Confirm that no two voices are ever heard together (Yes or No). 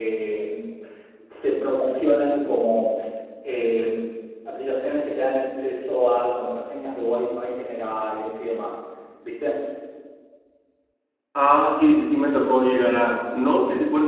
Yes